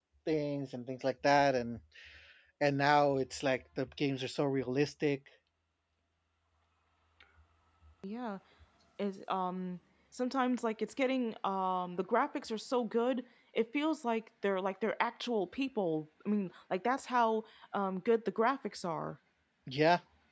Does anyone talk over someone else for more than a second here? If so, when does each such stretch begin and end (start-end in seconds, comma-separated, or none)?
none